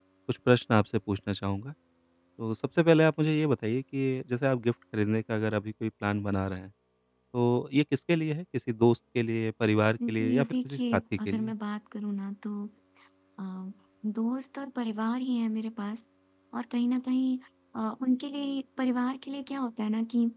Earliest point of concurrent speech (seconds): 10 s

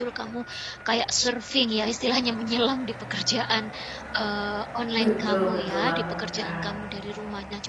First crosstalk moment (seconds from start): 5 s

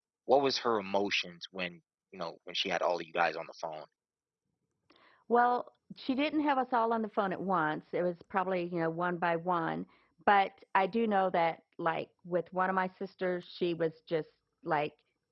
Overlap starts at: none

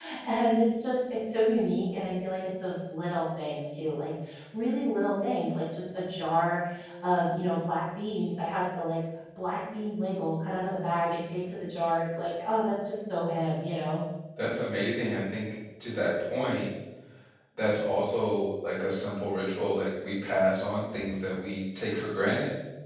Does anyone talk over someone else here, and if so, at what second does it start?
none

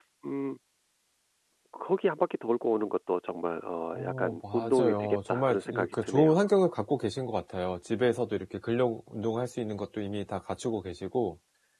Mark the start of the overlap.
4 s

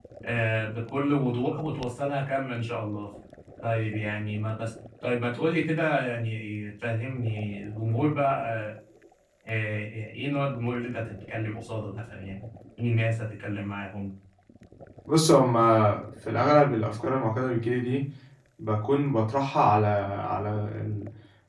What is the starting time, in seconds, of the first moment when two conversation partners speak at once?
none

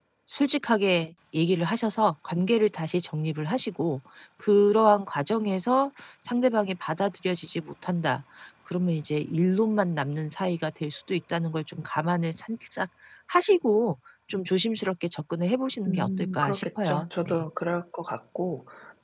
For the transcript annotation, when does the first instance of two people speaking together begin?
16 s

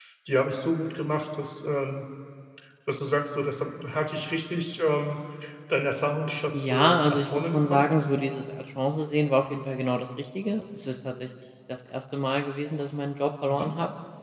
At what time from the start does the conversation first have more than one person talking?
7 s

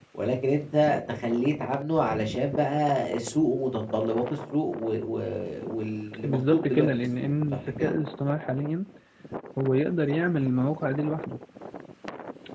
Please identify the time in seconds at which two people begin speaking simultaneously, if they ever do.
6 s

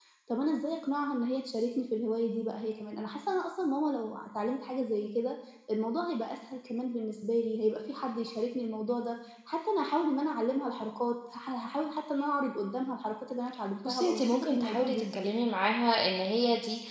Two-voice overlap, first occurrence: 14 s

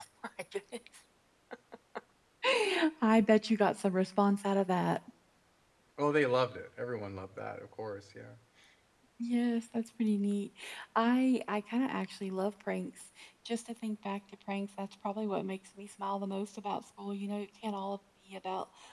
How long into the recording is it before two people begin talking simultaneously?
none

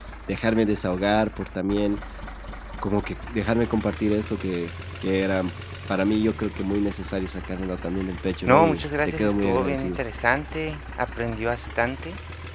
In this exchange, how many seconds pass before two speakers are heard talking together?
8 s

